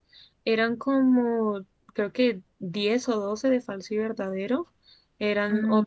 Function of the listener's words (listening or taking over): listening